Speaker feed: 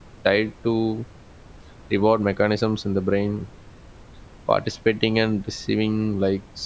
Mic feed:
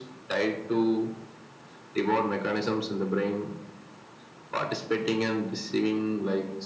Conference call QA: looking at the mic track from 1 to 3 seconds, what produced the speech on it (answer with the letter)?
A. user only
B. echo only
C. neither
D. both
B